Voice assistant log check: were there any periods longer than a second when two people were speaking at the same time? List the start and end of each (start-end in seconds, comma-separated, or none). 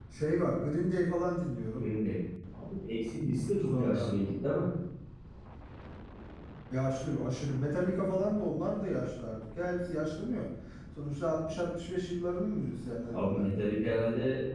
none